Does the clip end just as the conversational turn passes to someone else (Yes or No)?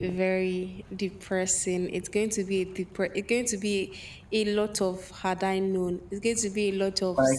Yes